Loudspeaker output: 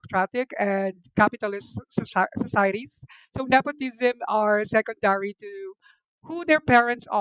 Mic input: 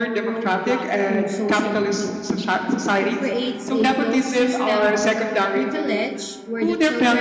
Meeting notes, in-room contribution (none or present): present